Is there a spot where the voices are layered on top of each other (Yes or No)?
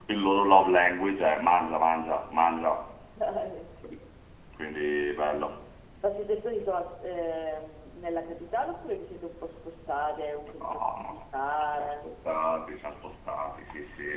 Yes